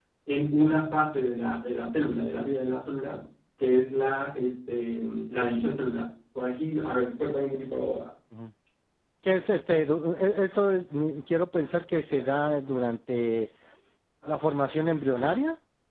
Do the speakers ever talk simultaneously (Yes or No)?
No